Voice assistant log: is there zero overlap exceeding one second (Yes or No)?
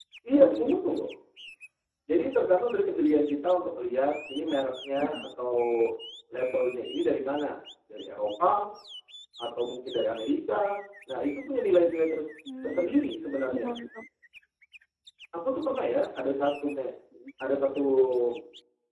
Yes